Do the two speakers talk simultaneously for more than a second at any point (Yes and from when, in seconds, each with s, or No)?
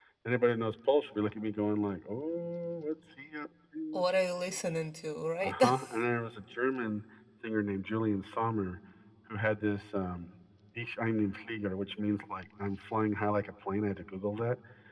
No